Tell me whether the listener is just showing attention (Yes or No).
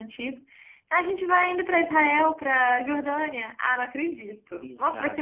No